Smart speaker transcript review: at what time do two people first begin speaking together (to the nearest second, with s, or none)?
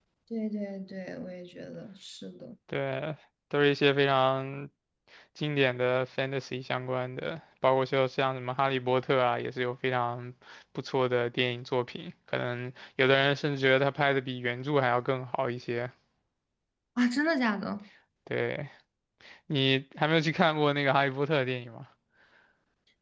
none